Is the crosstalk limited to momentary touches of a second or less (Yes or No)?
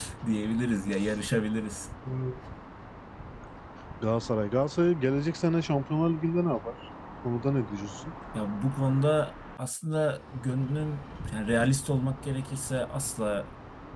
Yes